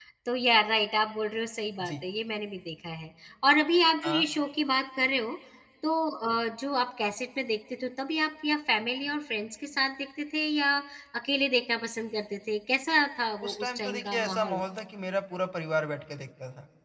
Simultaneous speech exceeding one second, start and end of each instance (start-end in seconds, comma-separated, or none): 13.4-14.6